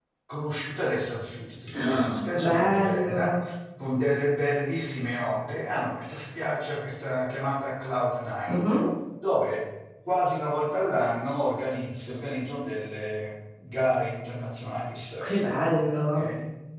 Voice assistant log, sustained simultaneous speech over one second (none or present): present